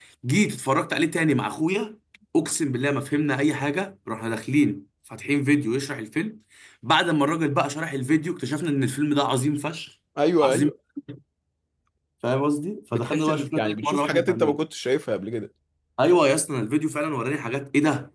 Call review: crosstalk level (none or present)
present